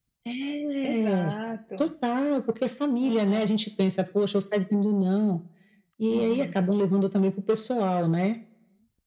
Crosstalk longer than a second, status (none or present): none